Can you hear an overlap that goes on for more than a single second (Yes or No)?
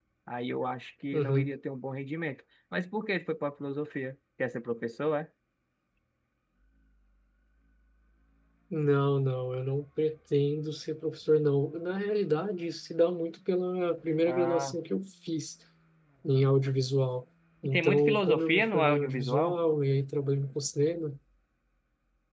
Yes